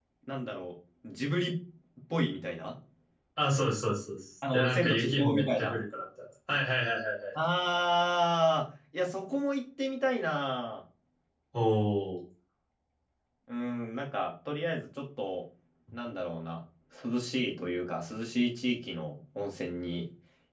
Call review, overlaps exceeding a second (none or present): present